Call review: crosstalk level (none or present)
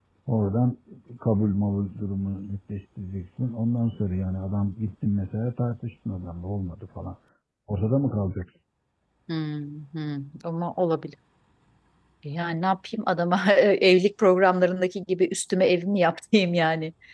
none